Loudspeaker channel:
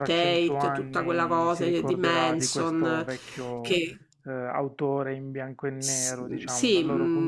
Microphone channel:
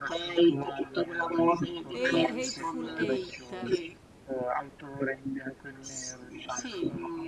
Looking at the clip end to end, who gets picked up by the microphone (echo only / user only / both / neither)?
both